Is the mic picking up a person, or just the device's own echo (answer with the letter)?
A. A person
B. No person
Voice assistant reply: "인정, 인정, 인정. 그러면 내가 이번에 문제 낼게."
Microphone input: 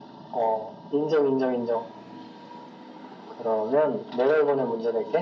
B